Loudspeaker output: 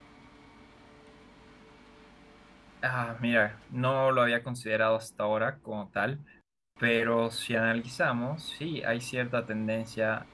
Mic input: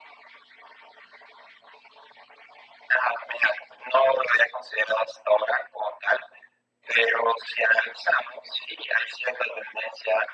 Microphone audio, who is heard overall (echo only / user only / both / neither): echo only